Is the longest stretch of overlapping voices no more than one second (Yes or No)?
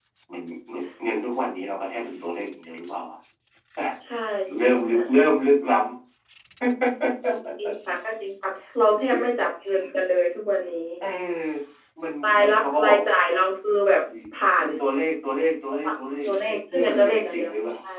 No